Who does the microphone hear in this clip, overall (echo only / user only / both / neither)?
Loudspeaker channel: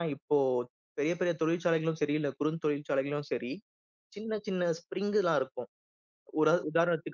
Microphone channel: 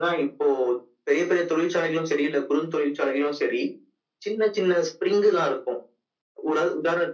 echo only